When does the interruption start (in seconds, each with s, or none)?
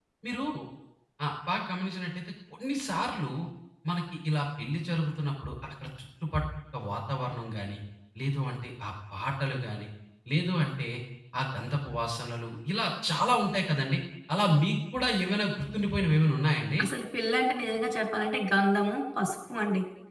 none